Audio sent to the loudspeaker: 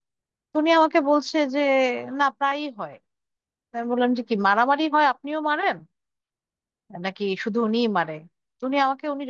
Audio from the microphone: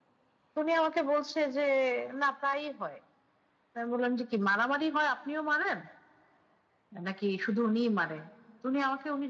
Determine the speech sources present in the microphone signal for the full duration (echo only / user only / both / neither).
echo only